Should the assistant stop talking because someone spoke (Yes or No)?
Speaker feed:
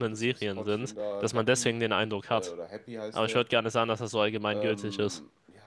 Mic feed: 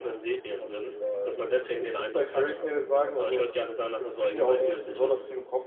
Yes